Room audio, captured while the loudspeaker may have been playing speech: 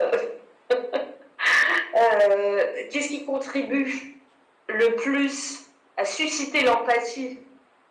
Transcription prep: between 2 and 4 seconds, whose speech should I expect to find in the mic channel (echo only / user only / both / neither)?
echo only